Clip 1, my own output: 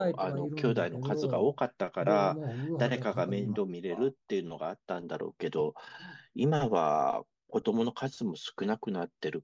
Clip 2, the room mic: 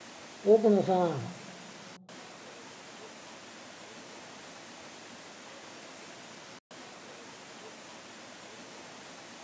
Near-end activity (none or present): present